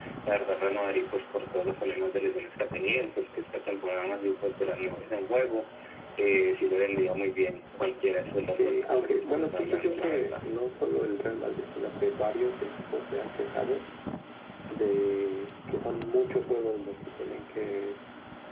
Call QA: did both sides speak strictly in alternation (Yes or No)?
No